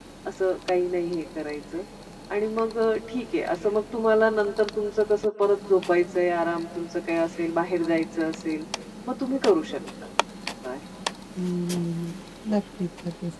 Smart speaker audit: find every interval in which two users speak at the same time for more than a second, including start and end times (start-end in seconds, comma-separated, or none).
none